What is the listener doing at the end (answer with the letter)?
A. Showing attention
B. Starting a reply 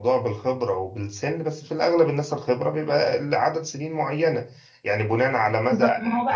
B